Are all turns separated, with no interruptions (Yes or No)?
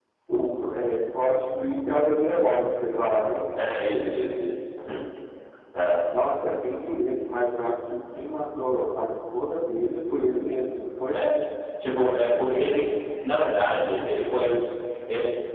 Yes